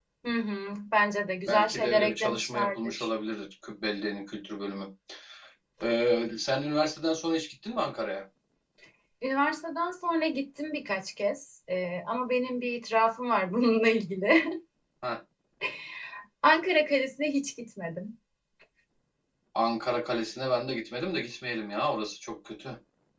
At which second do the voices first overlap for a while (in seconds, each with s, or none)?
1.4 s